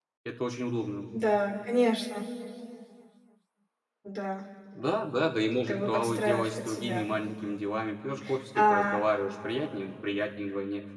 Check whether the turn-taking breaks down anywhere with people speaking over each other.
Yes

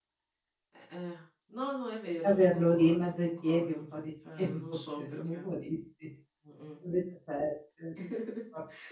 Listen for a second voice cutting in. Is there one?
Yes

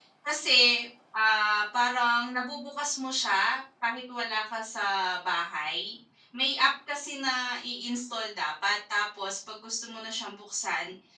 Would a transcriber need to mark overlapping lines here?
No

